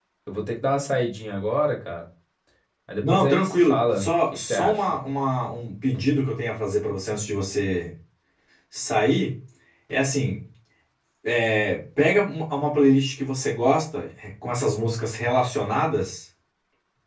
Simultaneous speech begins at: 3.0 s

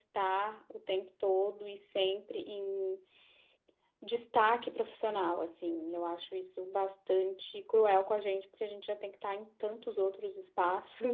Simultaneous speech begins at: none

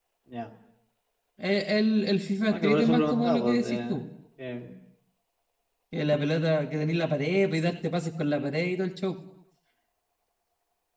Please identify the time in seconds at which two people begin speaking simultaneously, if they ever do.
2.5 s

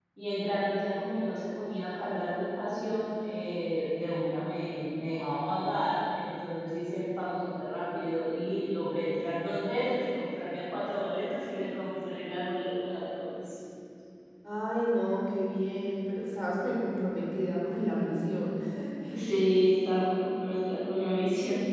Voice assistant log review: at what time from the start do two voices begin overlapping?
none

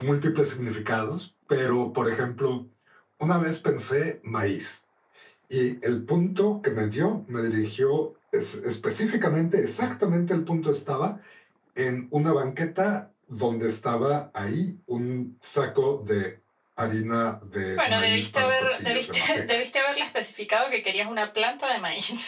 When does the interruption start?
17.7 s

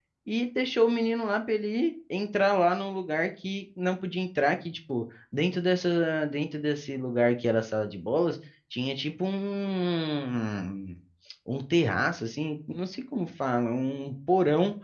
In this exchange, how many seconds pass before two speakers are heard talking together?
none

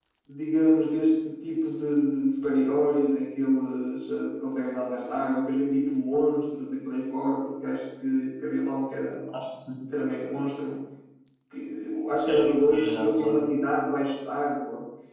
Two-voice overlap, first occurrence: 12.3 s

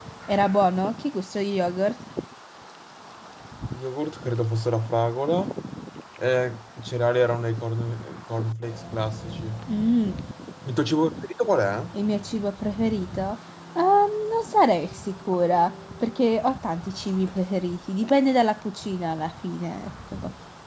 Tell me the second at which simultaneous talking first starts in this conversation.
none

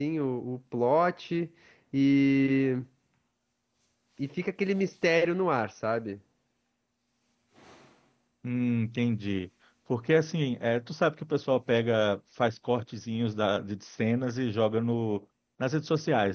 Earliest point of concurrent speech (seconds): none

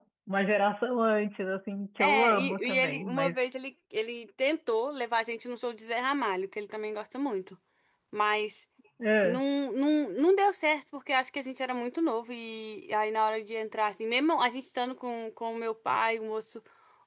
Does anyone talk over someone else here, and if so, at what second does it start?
2.0 s

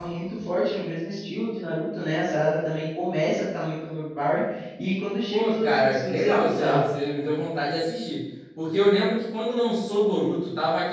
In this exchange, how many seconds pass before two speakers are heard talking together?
5.3 s

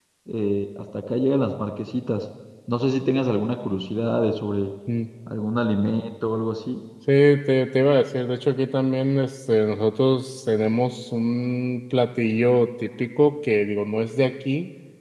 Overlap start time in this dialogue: none

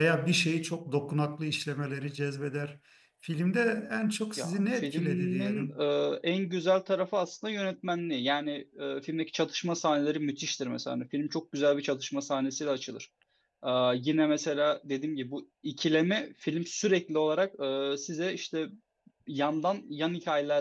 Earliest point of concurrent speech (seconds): 4.4 s

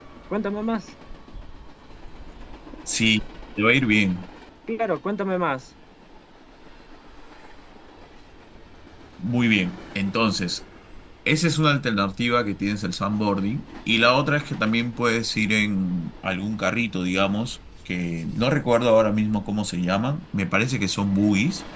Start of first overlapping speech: none

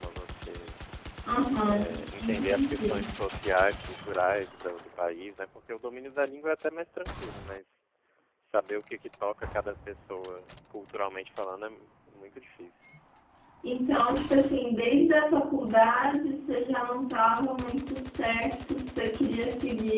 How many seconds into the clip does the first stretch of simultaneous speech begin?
1.6 s

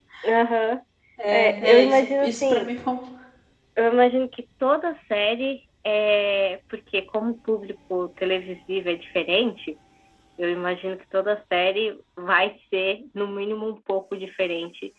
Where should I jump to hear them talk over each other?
1.3 s

